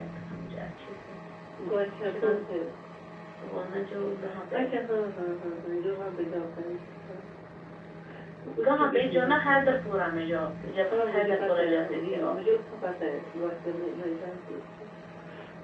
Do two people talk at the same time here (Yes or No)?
Yes